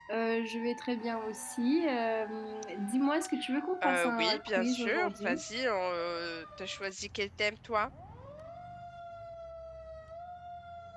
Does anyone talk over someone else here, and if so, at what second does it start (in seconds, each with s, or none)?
3.8 s